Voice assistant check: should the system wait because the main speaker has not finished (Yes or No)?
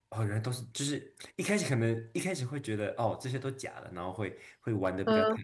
Yes